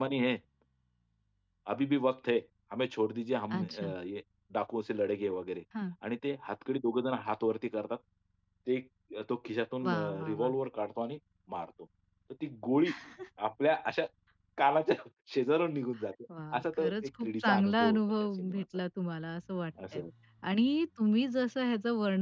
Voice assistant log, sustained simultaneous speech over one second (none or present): present